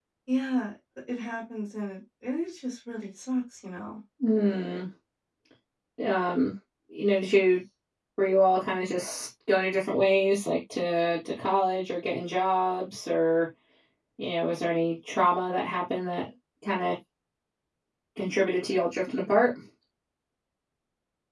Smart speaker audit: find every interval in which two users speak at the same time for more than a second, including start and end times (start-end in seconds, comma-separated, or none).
none